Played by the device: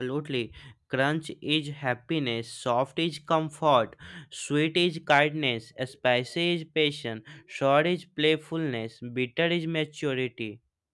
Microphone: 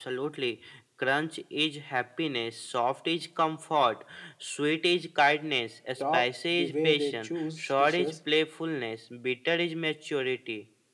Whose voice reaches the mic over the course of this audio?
both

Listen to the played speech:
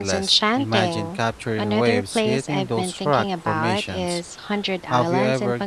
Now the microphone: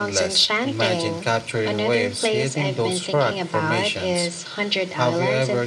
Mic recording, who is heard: echo only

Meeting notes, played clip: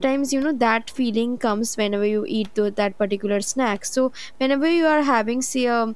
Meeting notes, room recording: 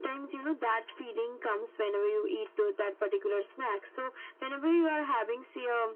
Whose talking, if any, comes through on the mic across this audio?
echo only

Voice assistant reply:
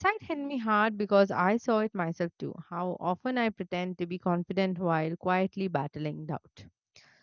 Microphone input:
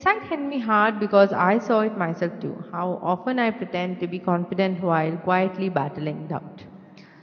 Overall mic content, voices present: echo only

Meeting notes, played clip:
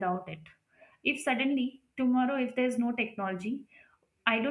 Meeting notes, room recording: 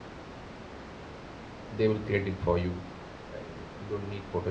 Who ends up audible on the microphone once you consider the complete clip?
user only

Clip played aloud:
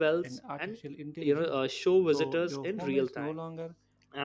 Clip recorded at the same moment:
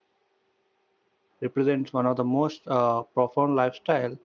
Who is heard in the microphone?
user only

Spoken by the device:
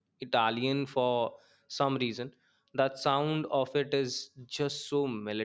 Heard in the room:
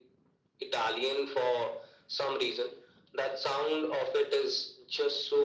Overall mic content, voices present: echo only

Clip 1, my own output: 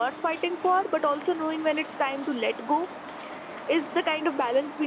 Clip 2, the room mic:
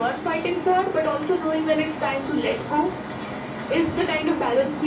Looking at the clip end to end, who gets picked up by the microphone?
echo only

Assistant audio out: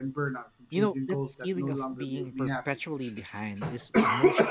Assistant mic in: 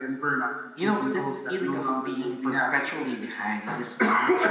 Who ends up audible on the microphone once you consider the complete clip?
echo only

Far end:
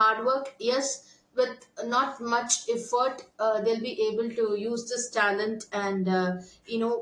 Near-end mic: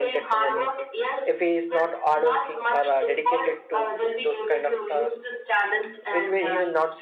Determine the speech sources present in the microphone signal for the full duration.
both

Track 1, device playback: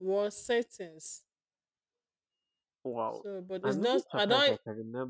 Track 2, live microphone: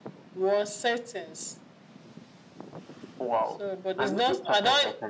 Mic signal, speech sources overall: echo only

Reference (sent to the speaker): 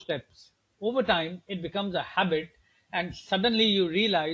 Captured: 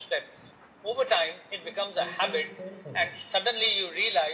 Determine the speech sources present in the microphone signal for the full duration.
both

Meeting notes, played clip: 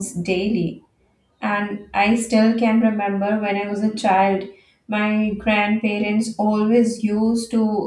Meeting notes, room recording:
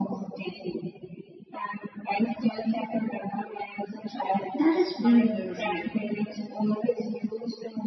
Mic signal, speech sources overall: both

